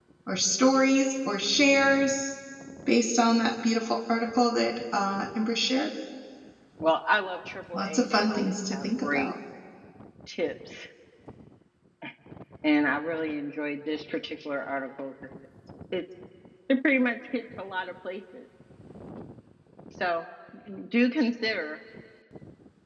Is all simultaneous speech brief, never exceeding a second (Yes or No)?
No